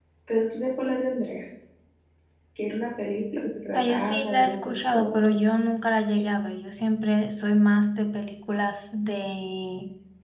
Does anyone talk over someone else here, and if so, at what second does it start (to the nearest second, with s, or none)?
4 s